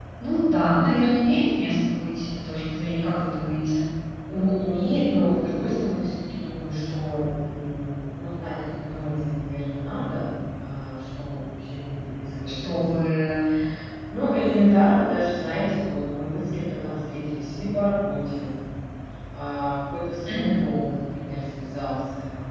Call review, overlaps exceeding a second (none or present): none